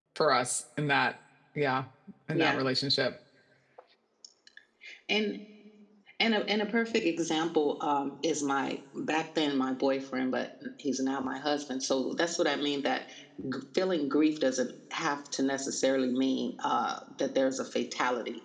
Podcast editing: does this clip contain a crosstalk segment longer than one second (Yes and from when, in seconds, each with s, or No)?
No